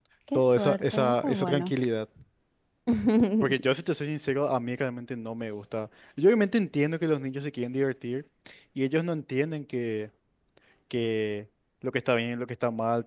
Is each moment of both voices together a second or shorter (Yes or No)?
No